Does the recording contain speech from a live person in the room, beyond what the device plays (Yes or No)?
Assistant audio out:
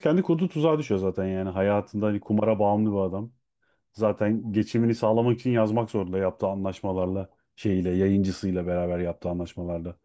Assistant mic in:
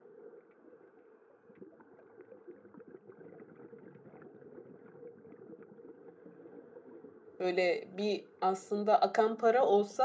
Yes